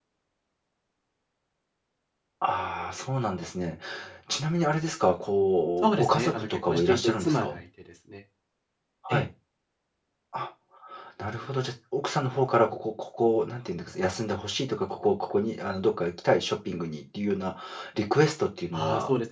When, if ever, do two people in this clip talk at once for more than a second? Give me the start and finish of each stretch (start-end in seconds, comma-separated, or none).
5.8-7.6